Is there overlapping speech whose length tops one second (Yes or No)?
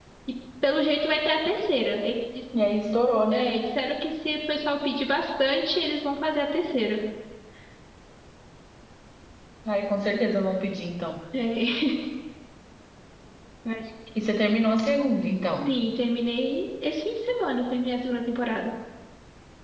No